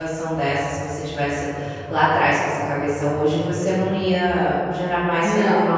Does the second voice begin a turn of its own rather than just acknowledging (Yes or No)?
No